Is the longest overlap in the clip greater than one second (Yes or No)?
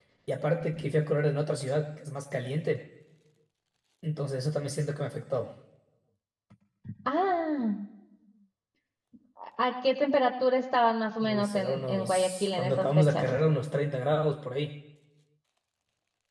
Yes